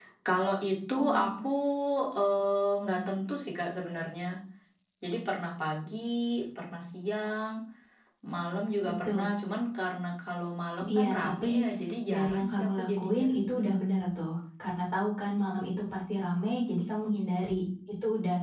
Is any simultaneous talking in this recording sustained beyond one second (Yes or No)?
Yes